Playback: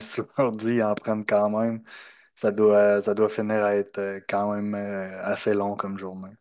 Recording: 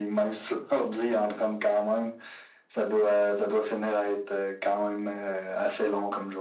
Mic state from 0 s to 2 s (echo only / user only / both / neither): echo only